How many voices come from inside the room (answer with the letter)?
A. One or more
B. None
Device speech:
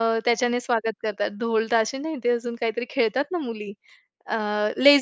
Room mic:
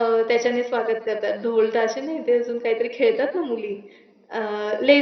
B